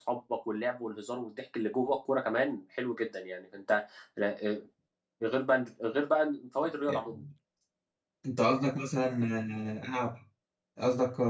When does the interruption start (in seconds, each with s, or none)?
none